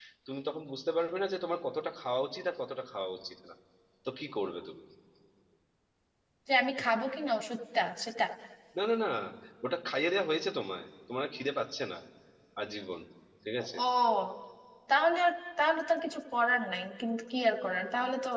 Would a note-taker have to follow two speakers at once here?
No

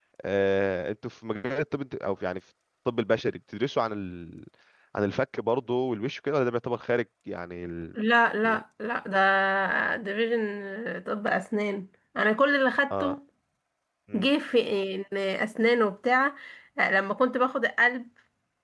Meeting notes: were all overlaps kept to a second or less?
Yes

